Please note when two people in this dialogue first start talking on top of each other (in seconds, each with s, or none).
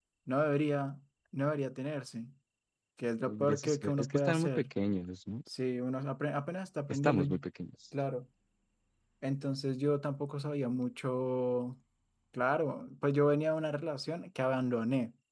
3.3 s